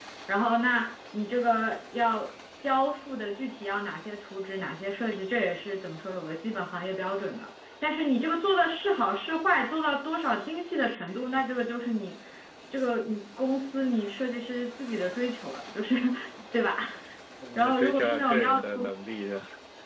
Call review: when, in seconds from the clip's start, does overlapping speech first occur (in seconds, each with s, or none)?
17.6 s